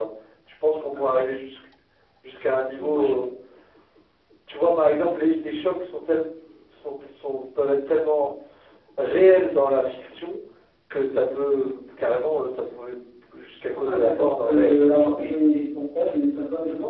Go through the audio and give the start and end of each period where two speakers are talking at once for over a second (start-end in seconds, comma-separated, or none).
13.8-15.2